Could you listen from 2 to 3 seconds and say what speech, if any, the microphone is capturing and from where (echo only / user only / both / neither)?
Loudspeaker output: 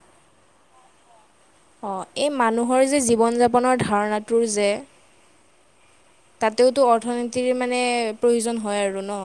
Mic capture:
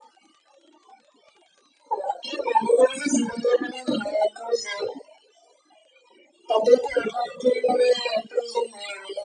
echo only